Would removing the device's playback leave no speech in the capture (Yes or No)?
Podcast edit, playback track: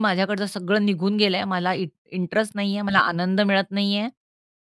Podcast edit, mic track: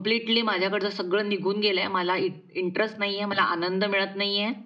Yes